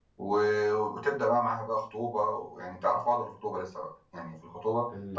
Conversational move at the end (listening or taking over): taking over